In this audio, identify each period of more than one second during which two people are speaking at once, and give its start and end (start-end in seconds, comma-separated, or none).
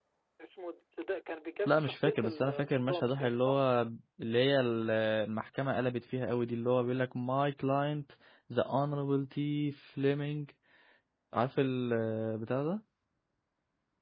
1.7-3.6